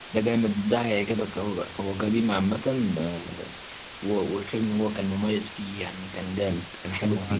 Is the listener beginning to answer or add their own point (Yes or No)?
Yes